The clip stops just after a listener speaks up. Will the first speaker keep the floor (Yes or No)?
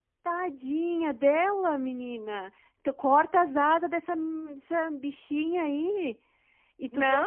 No